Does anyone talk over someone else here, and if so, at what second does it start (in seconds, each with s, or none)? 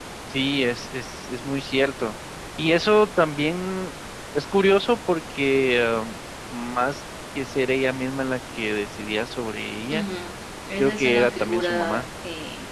10.8 s